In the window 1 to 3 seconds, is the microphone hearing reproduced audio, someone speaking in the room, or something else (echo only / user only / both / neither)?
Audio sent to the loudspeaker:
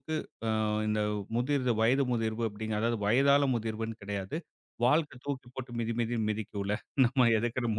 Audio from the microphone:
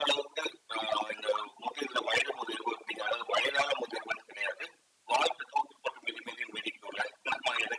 echo only